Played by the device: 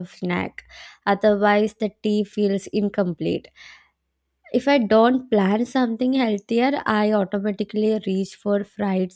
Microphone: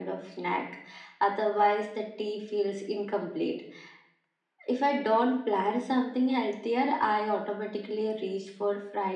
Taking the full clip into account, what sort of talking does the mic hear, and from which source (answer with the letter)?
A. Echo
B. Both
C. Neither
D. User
A